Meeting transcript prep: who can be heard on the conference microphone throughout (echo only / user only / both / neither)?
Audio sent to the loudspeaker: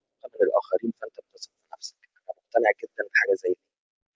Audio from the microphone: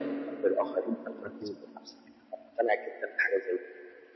both